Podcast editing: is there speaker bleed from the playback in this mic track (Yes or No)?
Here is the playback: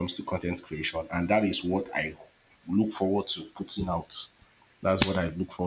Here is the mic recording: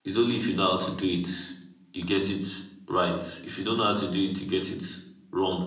No